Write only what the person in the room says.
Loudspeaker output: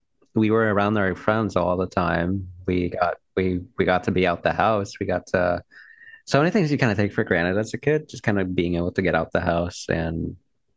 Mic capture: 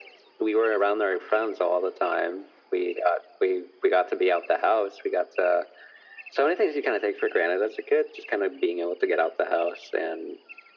none

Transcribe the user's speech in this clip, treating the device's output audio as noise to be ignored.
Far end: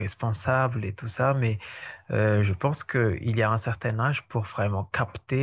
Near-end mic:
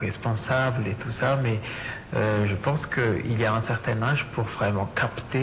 none

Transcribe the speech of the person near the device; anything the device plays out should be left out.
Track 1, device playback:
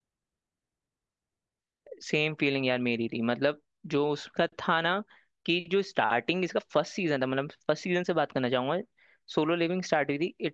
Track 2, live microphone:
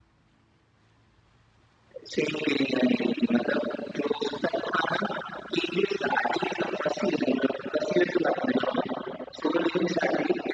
none

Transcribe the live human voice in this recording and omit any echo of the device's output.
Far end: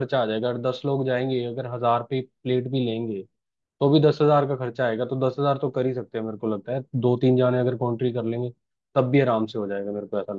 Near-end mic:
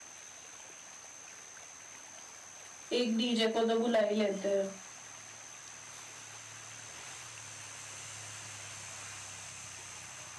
एक डीजे को तो बुला ही लेते हैं

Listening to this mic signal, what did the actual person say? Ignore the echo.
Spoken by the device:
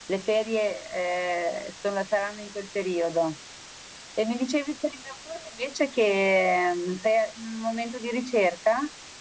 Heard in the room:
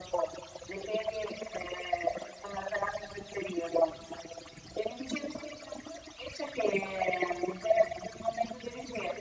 none

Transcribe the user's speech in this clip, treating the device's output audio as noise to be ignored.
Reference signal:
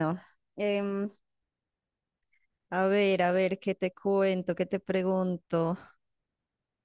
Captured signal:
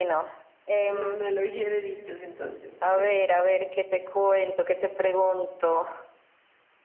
una analogía de dichos, entonces te cuento.

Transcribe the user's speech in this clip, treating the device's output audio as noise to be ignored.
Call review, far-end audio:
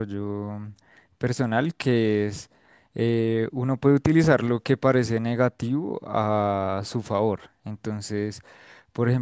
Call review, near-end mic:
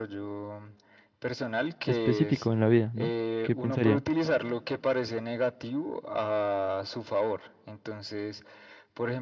específico en la vida, ¿no? ¿Qué pensaría?

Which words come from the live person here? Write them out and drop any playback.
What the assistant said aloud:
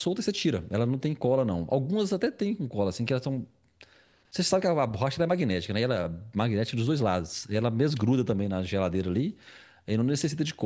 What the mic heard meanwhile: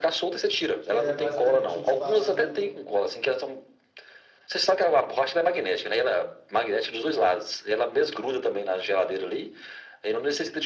que é basicamente o espaço

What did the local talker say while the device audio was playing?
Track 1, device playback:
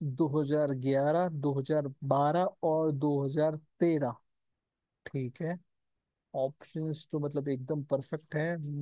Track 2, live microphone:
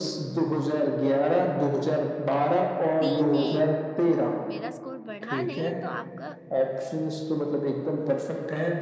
तीन एक मेरा स्कोर बढ़ा नहीं तो आपका

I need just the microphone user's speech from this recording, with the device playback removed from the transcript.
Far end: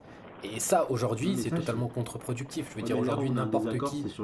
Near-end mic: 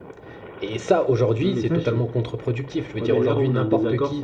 none

